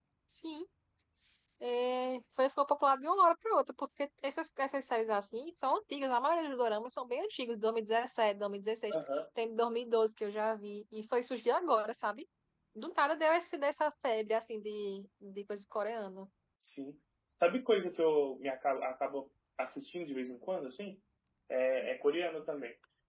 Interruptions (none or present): none